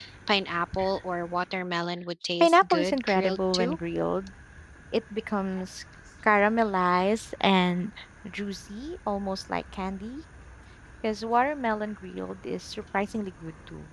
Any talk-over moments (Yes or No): Yes